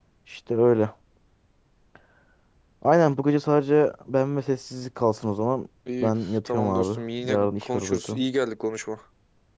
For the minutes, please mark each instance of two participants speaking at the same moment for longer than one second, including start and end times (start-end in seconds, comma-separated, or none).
6.0-8.2